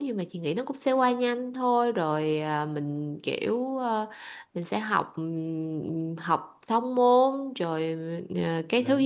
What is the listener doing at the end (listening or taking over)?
listening